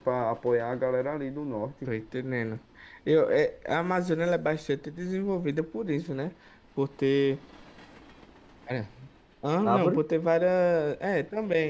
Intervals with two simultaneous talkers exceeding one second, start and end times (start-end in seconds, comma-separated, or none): none